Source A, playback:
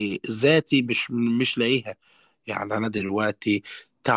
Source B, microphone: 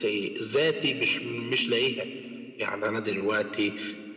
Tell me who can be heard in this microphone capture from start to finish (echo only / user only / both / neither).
echo only